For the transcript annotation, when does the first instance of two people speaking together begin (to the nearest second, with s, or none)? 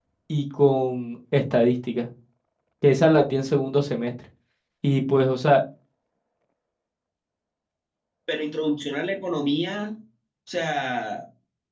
none